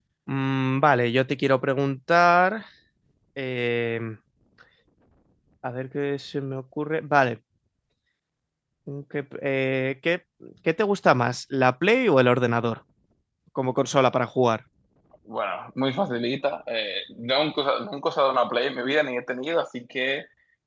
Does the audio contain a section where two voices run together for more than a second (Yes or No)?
No